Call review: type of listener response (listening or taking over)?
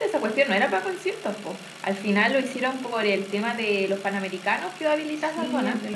taking over